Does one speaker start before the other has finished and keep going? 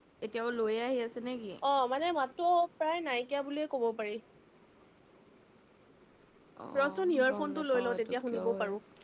Yes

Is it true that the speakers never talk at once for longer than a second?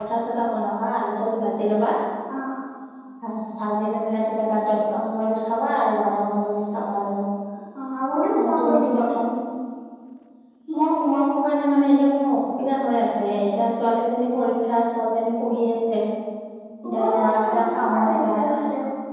No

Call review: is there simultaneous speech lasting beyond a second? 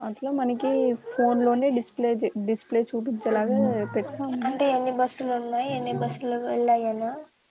No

